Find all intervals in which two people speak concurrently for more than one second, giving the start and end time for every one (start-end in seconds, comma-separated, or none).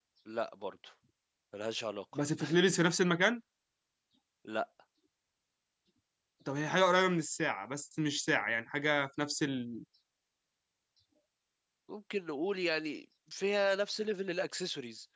none